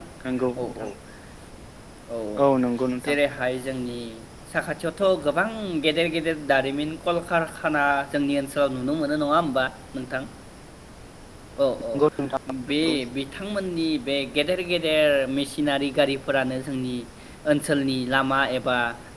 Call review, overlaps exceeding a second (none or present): none